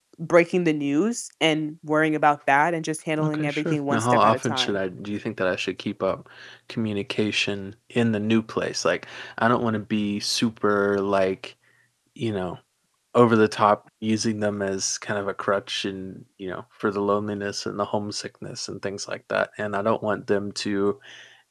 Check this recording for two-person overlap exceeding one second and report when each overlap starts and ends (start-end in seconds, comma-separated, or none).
3.2-4.8